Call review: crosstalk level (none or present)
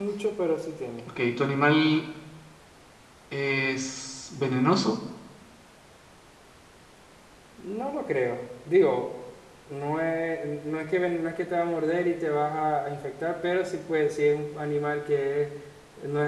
none